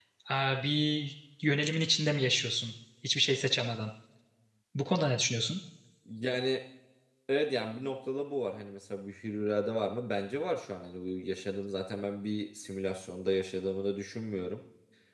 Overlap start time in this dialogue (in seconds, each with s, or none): none